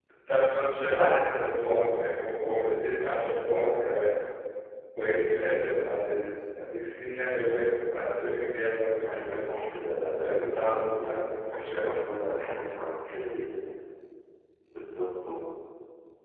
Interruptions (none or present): present